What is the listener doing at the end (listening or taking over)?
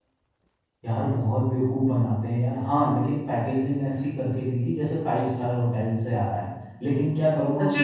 taking over